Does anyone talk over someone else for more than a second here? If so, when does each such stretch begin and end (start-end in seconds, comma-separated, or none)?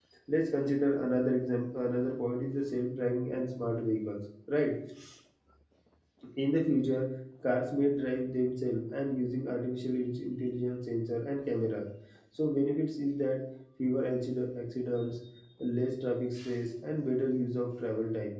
none